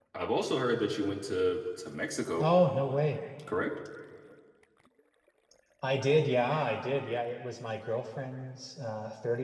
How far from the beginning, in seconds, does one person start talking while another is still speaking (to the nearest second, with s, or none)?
none